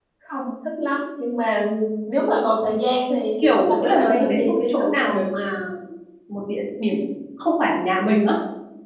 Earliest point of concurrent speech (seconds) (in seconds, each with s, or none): 3.4 s